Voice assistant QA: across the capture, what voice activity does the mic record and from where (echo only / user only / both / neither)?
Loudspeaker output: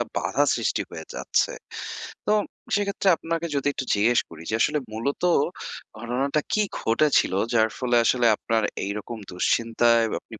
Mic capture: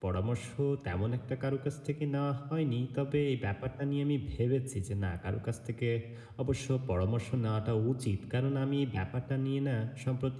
user only